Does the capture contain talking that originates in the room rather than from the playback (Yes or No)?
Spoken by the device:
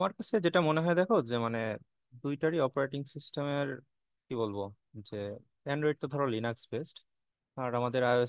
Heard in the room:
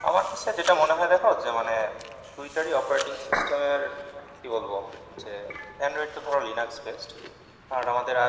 No